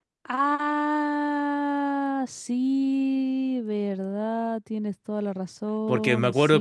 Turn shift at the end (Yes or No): Yes